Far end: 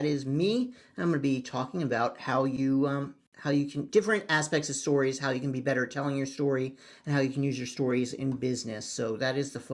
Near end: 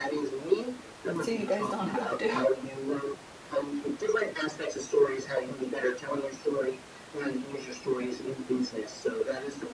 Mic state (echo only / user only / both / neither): both